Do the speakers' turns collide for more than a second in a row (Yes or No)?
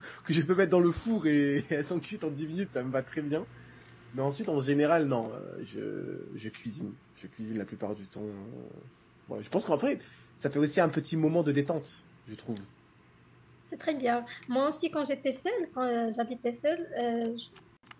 No